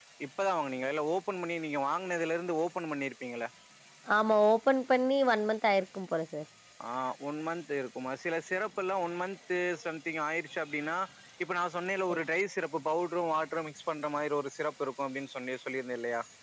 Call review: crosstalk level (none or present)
none